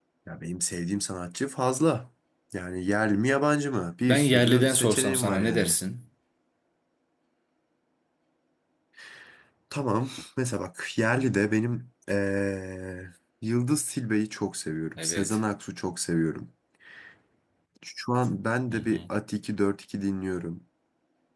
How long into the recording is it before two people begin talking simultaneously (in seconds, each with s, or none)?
4.1 s